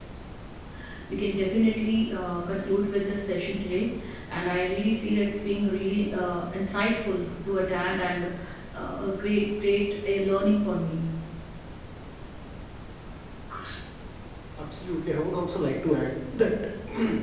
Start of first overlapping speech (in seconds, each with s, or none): none